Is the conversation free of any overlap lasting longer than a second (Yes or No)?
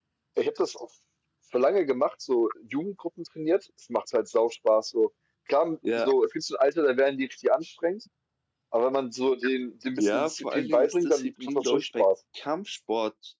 No